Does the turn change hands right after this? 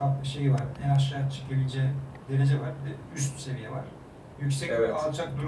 No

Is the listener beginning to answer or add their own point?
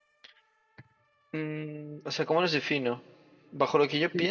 Yes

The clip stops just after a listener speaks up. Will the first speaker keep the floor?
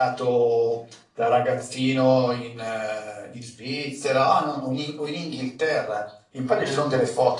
Yes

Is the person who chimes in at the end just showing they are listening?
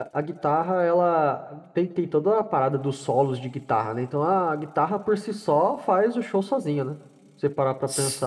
No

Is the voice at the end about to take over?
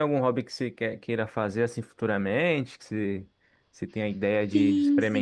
Yes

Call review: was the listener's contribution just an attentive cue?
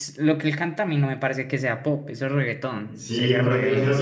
No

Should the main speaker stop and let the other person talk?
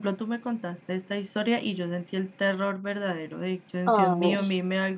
No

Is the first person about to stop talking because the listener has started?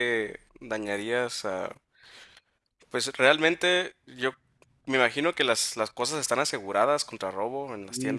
Yes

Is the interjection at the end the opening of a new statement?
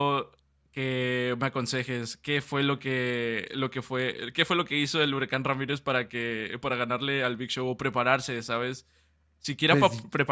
No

